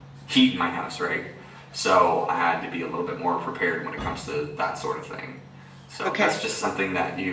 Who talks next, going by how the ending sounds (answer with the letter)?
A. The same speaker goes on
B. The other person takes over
A